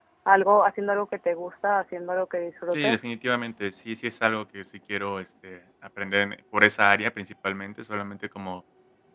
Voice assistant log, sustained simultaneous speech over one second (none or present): none